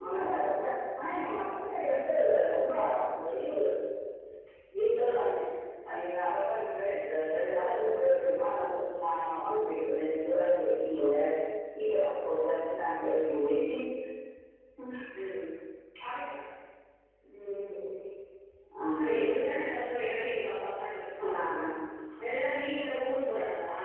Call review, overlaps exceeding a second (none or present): none